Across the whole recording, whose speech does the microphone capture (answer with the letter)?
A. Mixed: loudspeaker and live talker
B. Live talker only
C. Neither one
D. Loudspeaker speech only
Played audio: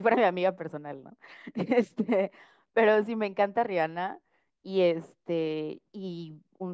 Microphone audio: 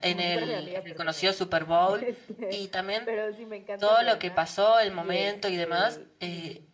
A